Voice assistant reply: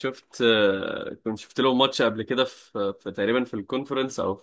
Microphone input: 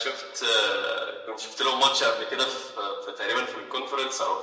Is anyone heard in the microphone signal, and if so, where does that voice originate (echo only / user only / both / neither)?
both